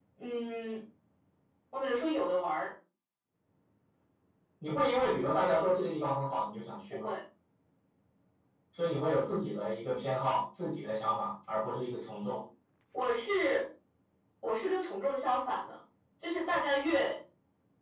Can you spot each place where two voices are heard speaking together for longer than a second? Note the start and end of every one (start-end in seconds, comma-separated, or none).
none